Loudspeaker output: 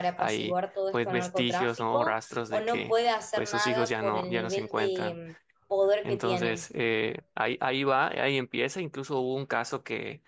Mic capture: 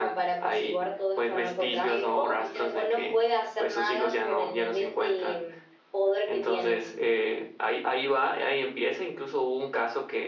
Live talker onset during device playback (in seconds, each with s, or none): 1.8 s